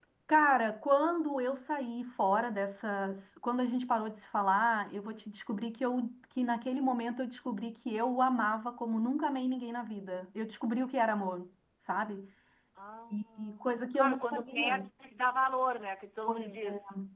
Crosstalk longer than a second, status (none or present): present